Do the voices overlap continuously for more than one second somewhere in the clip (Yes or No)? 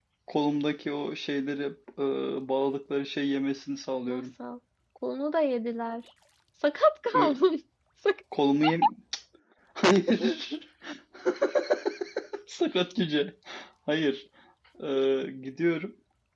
No